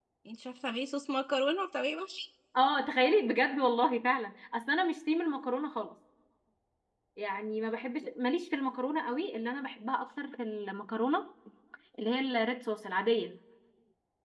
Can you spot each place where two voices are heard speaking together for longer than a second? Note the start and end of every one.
none

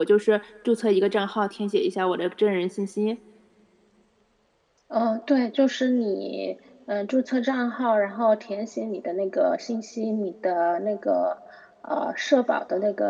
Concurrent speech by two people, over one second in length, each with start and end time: none

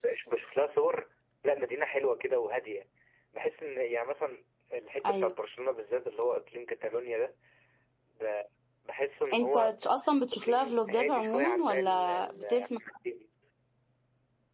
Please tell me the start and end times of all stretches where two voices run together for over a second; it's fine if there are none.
10.3-12.8

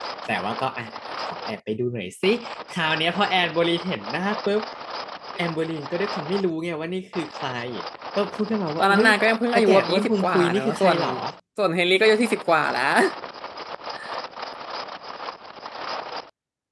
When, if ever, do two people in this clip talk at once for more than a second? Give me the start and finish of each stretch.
9.6-11.0

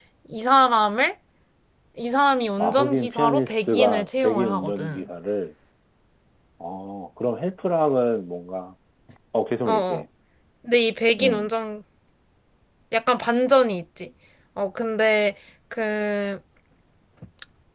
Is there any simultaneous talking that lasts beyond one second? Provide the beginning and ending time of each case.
2.6-5.1

